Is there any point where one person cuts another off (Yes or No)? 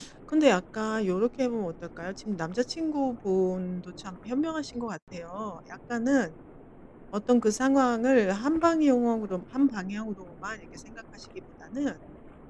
No